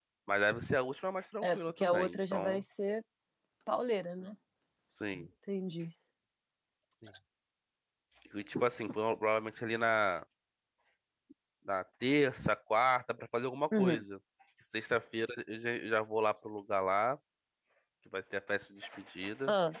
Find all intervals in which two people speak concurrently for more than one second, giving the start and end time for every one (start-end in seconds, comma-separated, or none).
1.4-2.6